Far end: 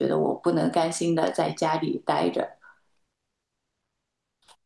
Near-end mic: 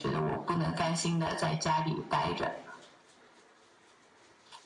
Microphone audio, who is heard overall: echo only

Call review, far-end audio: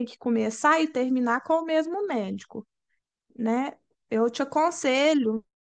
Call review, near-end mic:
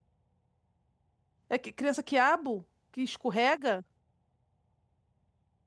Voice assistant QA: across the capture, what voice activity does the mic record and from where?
user only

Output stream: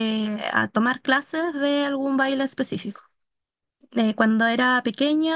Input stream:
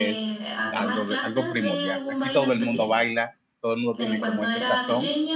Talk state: both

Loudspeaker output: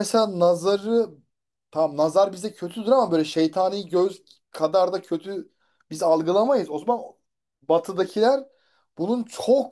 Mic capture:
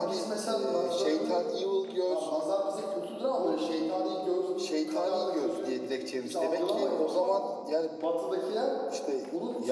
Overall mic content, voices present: both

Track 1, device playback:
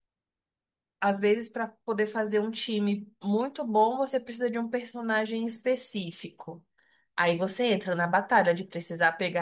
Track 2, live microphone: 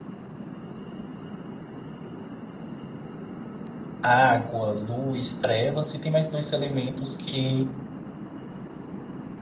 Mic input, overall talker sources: user only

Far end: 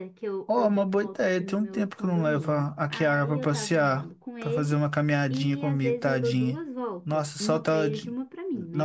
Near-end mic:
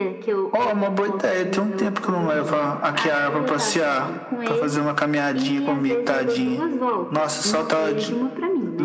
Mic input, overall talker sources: echo only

